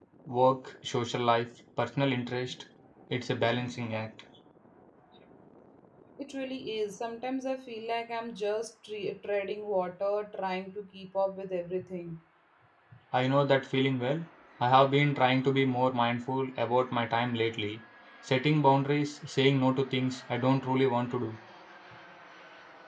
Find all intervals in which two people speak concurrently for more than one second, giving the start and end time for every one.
none

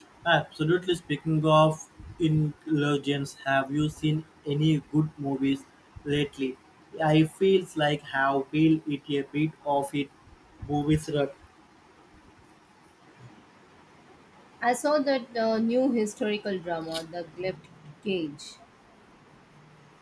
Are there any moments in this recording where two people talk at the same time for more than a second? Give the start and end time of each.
none

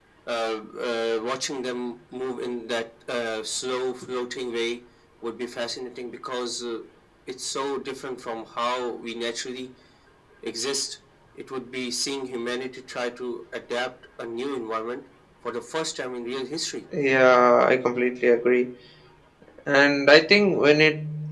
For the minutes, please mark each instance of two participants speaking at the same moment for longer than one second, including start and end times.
none

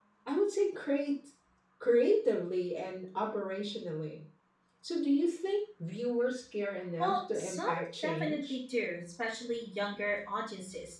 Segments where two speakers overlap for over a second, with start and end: 7.0-8.6

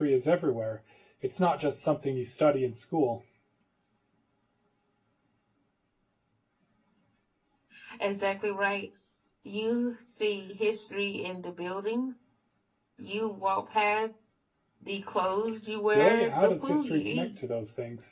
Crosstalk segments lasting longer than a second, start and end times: 15.9-17.3

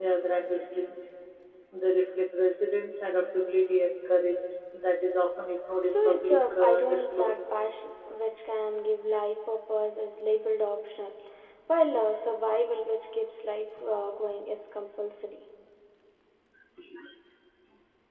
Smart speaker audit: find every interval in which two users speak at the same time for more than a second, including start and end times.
5.8-7.4

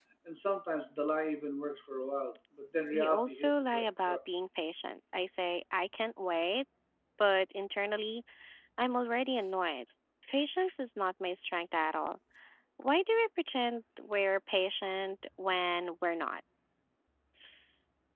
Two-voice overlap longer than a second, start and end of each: 2.9-4.2

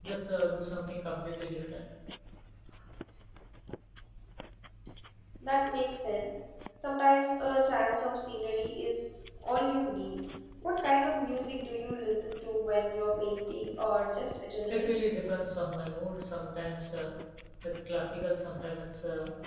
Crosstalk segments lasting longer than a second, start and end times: none

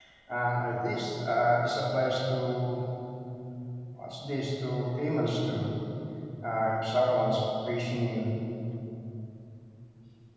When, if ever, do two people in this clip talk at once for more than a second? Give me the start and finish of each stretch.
none

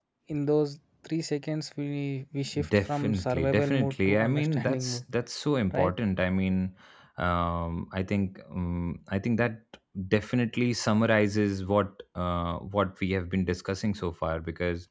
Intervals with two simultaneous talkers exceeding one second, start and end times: 2.7-5.0

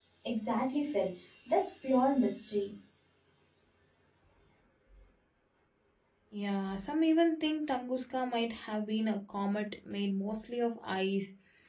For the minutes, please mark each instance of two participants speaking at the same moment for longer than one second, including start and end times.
none

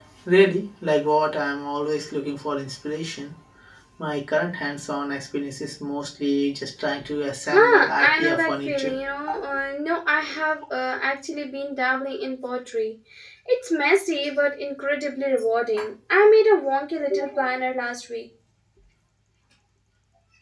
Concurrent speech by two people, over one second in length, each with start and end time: 7.5-8.9

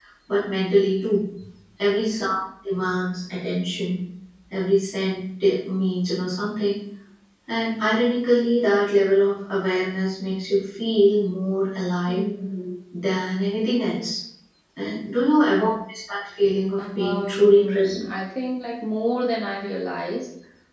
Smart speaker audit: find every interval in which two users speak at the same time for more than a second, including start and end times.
16.8-18.0

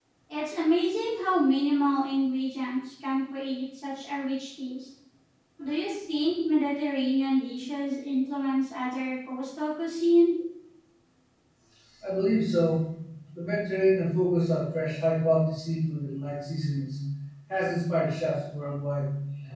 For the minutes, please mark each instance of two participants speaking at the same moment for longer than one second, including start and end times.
none

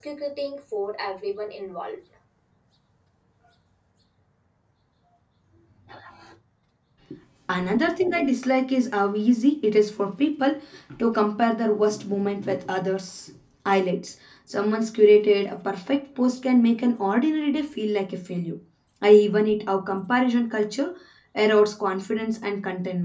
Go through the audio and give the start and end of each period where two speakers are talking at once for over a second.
none

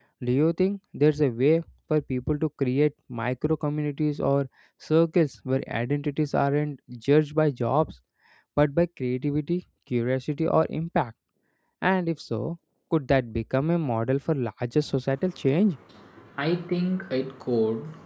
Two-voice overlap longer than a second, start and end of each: none

